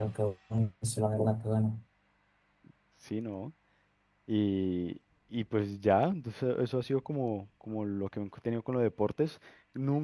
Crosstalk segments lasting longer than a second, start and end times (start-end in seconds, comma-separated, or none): none